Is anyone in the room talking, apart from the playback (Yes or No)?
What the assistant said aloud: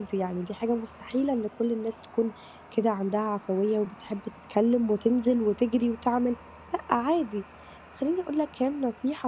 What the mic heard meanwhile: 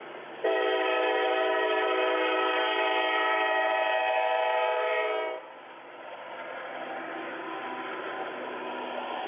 No